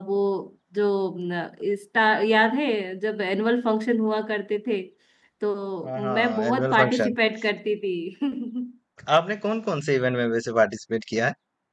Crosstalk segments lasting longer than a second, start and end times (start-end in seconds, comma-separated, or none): 5.8-7.2